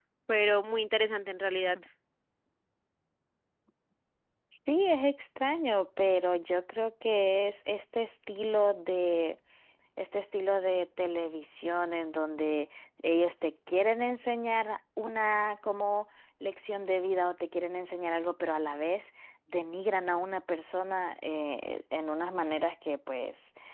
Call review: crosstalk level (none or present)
none